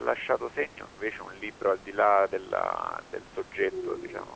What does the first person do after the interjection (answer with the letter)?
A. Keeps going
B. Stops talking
B